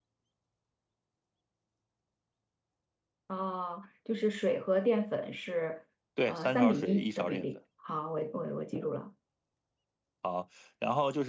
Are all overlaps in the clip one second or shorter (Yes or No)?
No